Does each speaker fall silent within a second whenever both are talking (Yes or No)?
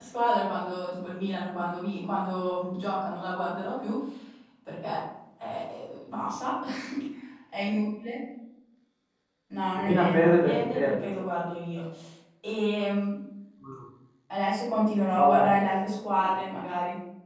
No